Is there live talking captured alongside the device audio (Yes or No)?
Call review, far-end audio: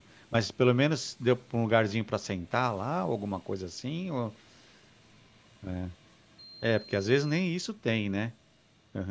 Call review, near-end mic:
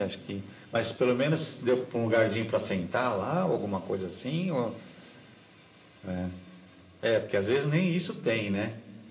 No